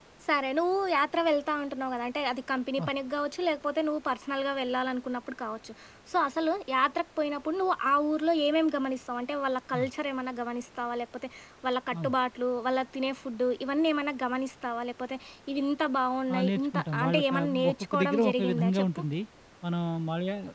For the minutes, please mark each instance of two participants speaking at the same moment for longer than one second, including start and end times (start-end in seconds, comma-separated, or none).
16.3-19.0